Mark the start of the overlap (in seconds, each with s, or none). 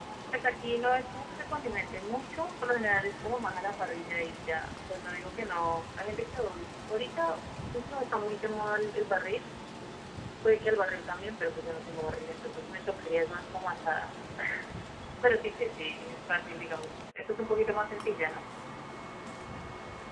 none